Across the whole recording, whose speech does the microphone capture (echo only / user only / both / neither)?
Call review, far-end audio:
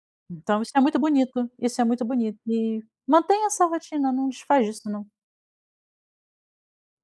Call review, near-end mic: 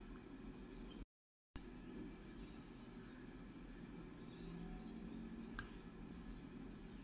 neither